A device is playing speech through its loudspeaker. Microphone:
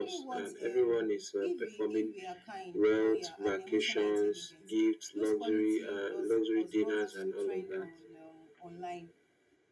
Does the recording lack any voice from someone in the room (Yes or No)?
No